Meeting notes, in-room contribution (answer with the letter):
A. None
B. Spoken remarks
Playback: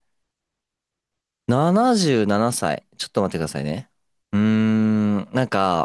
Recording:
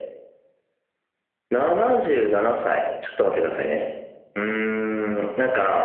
A